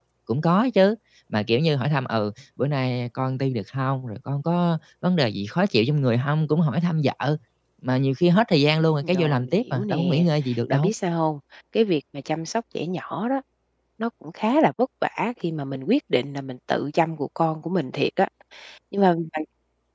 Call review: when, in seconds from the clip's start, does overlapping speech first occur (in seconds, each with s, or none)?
9.0 s